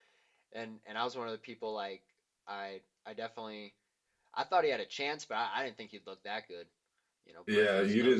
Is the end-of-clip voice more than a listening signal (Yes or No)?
Yes